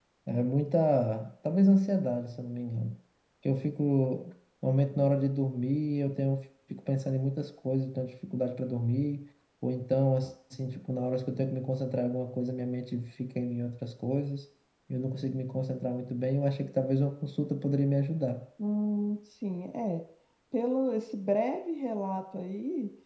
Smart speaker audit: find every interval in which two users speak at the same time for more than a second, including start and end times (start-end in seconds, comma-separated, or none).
none